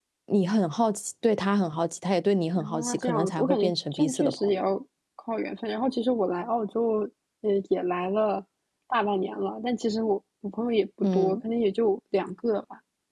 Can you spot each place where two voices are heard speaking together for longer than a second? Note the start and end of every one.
2.6-4.6

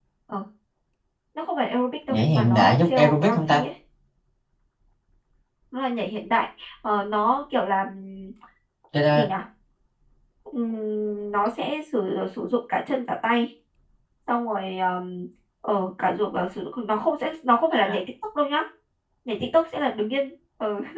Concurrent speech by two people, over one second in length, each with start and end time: 2.1-3.6

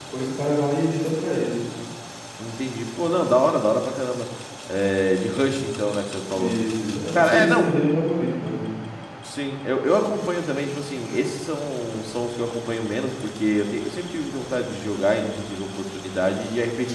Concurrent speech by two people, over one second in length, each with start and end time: none

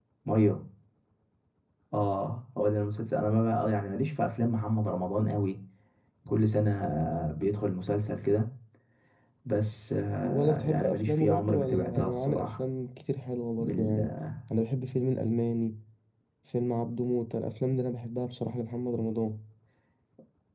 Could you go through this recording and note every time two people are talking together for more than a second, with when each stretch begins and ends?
10.2-12.6

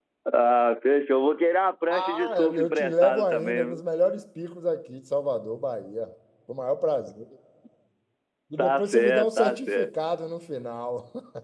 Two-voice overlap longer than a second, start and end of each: 1.9-3.8, 8.6-9.9

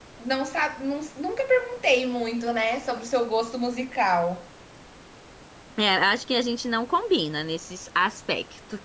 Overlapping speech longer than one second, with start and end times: none

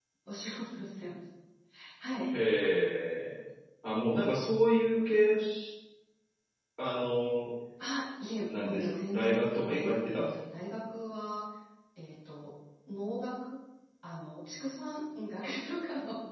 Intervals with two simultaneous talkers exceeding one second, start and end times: 8.5-10.3

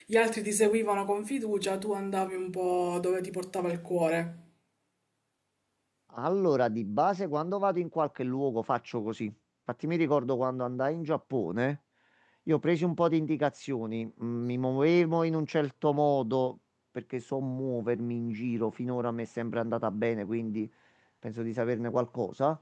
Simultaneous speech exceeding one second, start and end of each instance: none

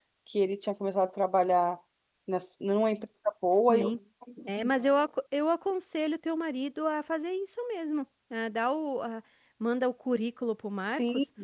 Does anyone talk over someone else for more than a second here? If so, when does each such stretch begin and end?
none

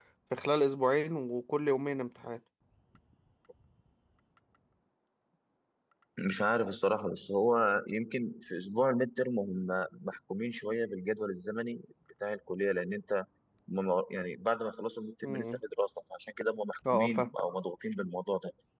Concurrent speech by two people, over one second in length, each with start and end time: none

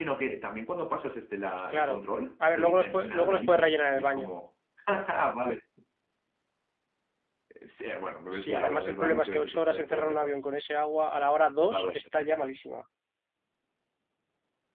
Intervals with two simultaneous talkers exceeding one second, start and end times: 2.5-4.3, 8.4-10.4

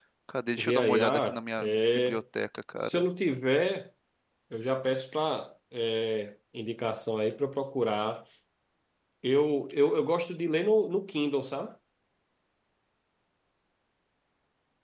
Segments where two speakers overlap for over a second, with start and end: 0.6-2.2

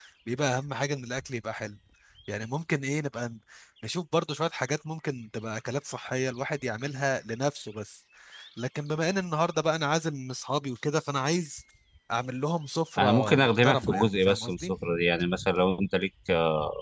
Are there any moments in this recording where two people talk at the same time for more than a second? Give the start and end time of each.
13.0-14.7

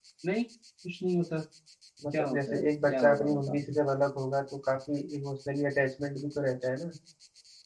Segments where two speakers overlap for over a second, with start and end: 2.1-3.6

